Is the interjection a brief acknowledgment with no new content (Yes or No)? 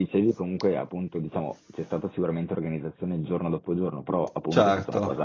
Yes